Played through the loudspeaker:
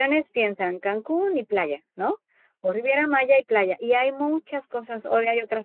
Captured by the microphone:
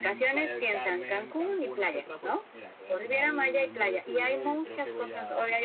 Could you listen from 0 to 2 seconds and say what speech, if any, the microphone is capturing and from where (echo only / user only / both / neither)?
both